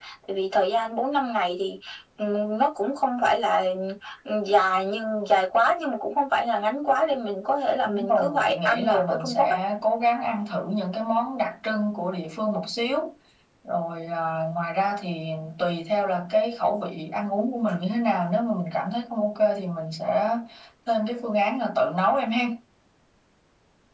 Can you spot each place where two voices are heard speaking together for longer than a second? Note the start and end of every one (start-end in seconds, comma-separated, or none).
7.8-9.6